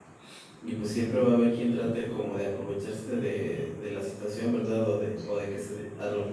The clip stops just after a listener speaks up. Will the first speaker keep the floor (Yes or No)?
Yes